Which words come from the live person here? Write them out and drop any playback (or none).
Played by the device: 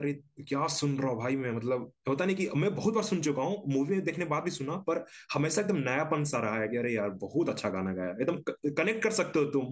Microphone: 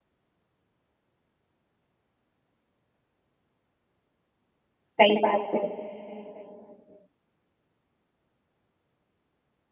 सही बात है